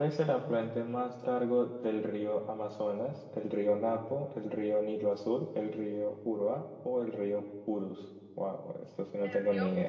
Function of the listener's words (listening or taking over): taking over